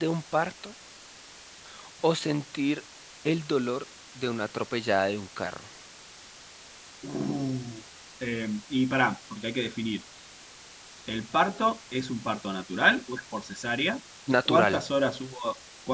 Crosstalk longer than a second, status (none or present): none